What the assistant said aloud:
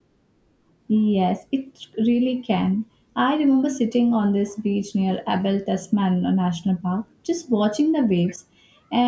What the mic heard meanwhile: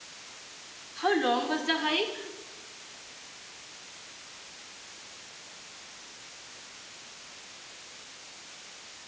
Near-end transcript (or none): How long was the hike?